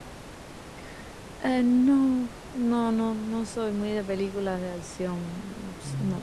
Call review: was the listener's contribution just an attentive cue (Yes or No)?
Yes